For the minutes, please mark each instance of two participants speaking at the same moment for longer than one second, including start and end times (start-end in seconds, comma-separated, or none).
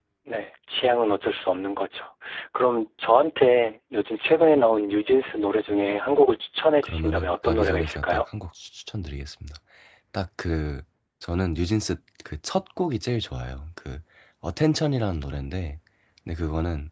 6.8-8.2